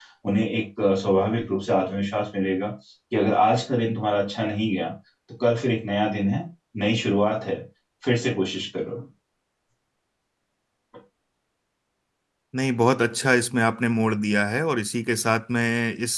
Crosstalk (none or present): none